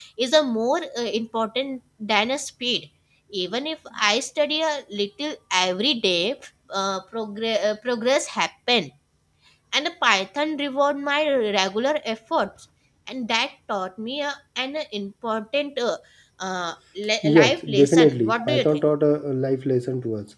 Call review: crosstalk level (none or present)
present